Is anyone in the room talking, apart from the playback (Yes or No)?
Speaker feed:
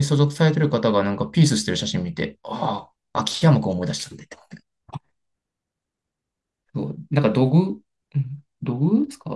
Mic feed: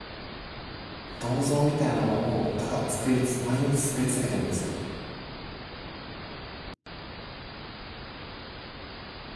Yes